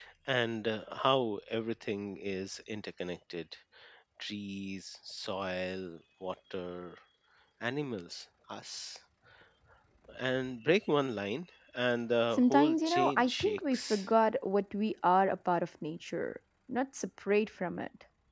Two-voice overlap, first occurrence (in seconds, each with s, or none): 12.3 s